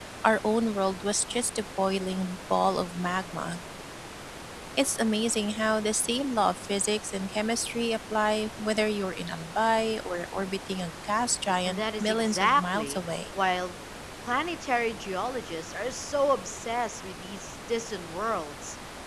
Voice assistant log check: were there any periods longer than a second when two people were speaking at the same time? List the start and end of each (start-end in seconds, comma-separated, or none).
11.7-13.0